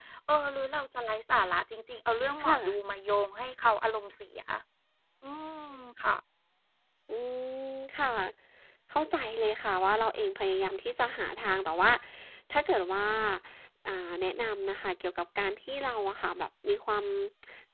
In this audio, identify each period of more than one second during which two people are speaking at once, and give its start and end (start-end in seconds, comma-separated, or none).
none